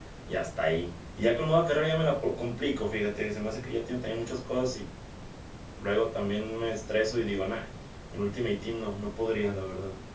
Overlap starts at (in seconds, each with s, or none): none